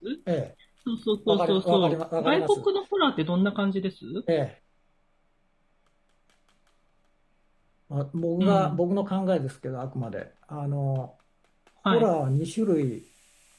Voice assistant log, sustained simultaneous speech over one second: present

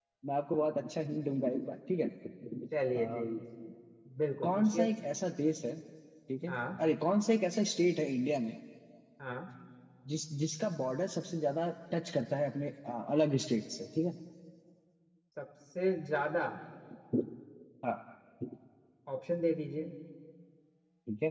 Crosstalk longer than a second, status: none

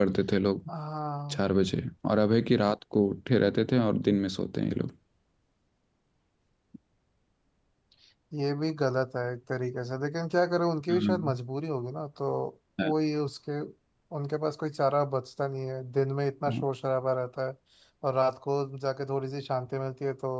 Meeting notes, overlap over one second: none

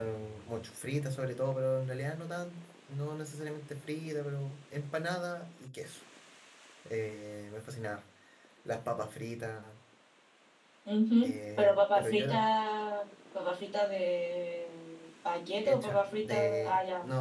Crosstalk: present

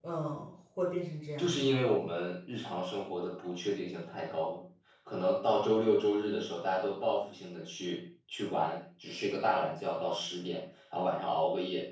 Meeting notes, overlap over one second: none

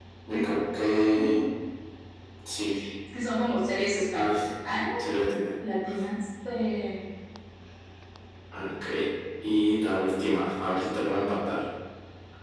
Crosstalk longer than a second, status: none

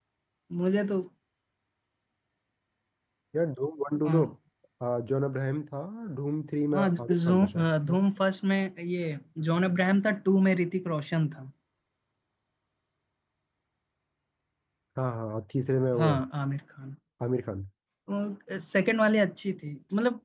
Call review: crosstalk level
present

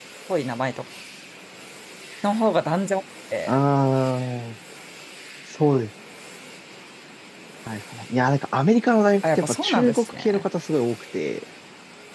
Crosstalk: present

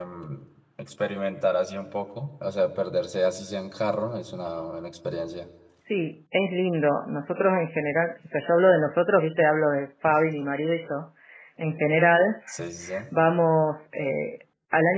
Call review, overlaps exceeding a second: none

